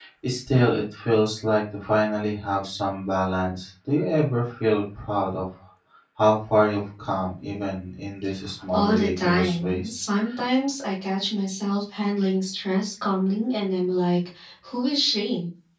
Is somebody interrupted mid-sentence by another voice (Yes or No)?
Yes